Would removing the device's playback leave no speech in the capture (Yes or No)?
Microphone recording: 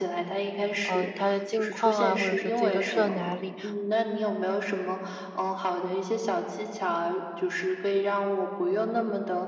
No